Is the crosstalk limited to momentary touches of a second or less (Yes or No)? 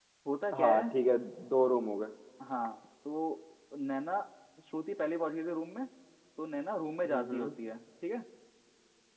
Yes